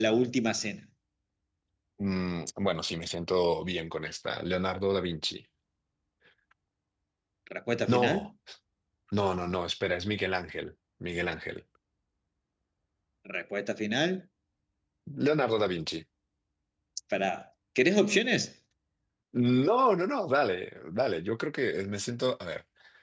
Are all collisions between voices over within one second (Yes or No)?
Yes